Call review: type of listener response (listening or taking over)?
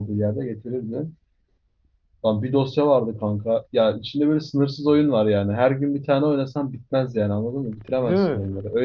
listening